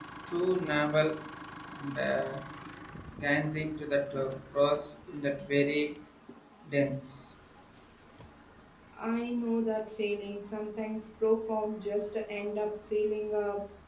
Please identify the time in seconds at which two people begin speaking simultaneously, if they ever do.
none

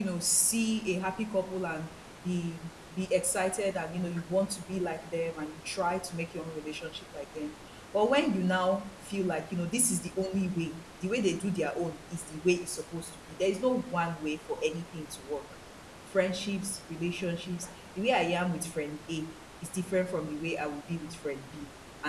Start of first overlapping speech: none

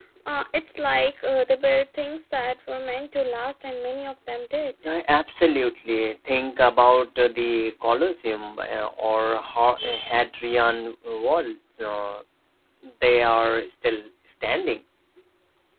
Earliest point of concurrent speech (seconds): none

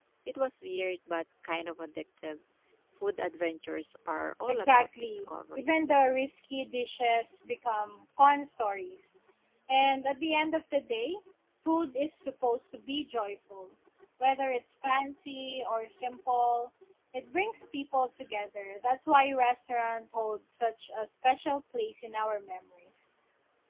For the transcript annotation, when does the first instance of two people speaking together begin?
4.5 s

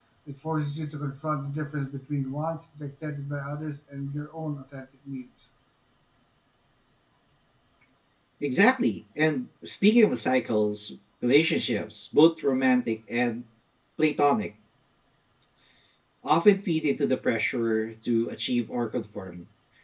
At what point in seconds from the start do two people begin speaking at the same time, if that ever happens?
none

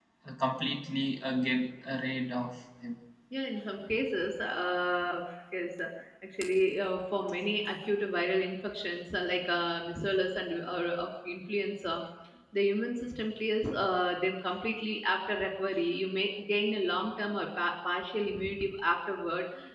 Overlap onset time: none

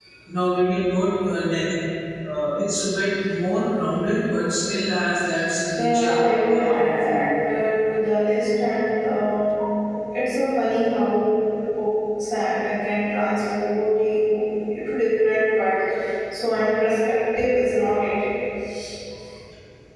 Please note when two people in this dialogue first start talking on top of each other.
5.7 s

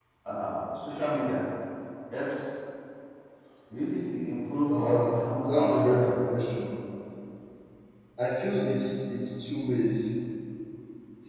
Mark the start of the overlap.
4.7 s

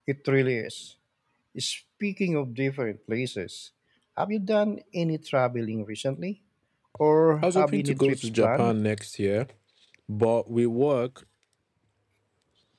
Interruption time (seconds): 7.4 s

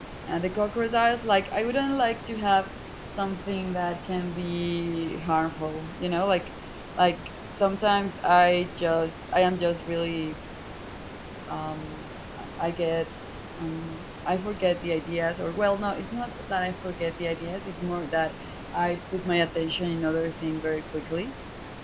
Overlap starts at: none

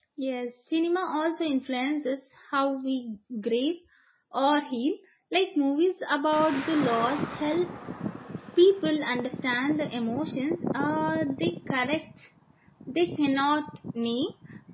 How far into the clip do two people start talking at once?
none

